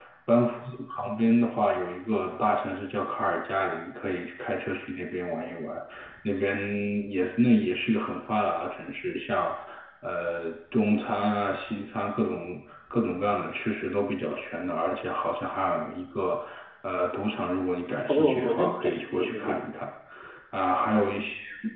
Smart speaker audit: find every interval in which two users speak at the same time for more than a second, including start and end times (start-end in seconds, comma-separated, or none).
18.1-19.6